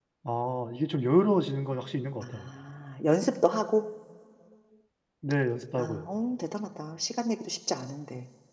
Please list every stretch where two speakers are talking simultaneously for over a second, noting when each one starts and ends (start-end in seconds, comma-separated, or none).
none